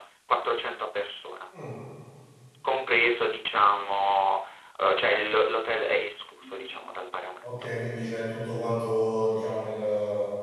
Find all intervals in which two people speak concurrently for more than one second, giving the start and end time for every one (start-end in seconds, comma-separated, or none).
none